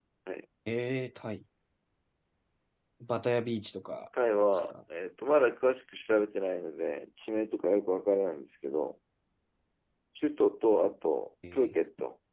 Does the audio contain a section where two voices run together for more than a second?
No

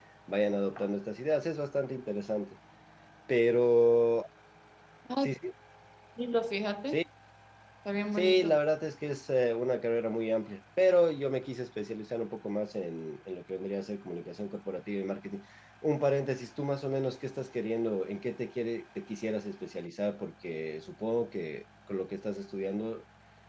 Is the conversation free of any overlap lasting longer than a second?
Yes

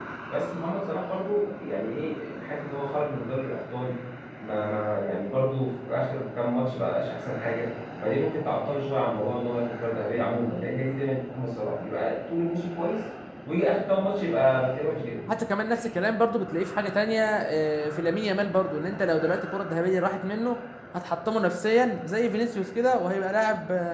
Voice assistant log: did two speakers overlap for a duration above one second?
No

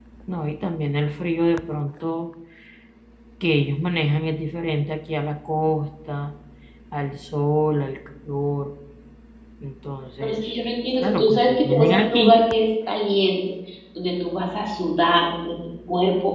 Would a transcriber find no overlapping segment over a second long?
No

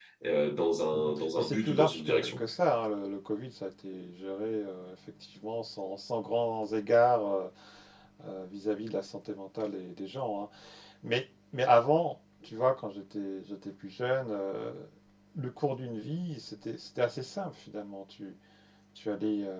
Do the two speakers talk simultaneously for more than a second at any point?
Yes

